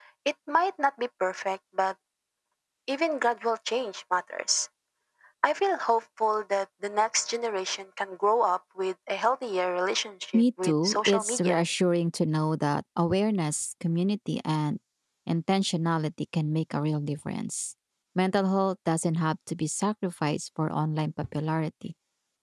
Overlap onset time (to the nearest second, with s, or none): 10 s